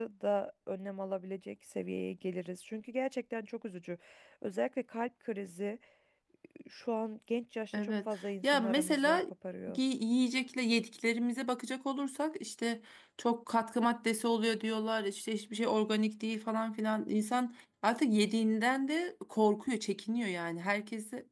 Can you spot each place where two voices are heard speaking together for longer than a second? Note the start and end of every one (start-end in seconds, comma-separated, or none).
7.7-9.2